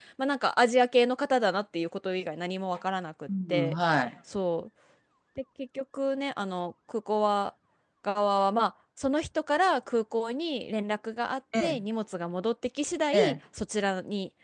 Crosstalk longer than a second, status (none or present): none